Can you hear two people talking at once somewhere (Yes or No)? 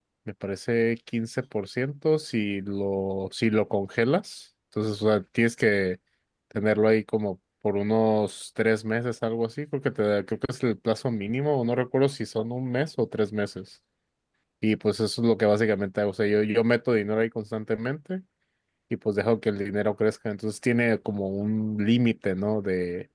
No